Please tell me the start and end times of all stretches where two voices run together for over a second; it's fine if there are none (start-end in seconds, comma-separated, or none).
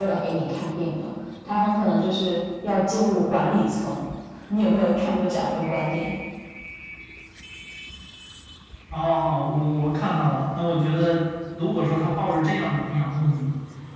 none